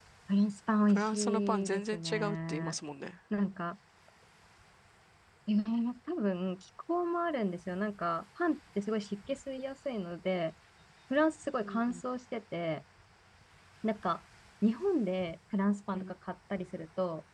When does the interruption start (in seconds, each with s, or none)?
0.9 s